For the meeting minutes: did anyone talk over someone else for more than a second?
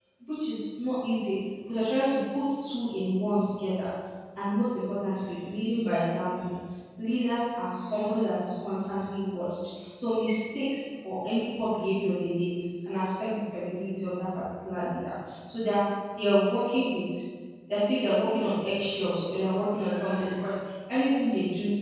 No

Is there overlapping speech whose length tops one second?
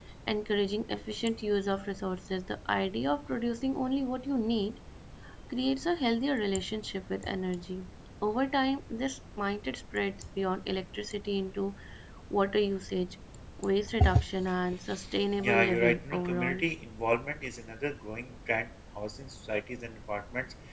Yes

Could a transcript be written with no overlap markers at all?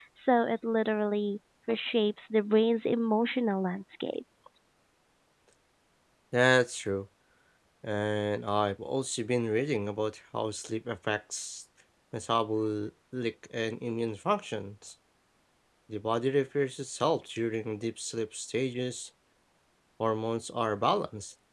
Yes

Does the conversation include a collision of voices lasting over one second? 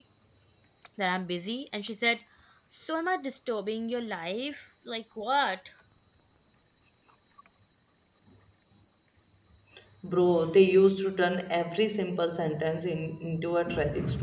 No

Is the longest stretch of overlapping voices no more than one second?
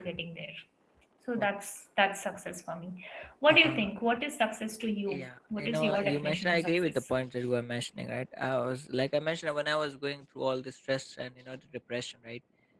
No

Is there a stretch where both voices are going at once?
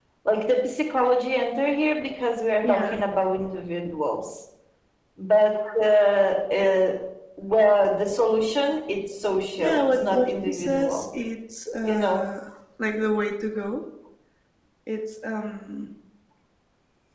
Yes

